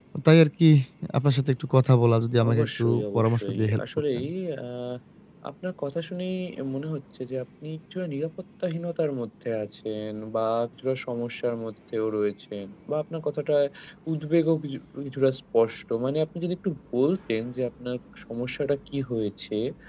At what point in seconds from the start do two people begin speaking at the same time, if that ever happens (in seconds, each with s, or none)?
2.4 s